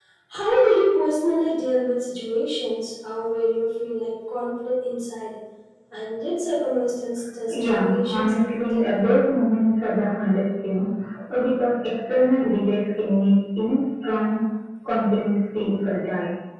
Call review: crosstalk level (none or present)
present